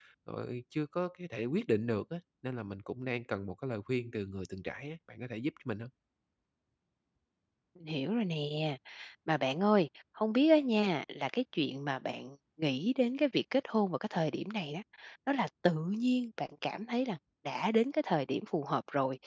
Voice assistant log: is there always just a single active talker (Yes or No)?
Yes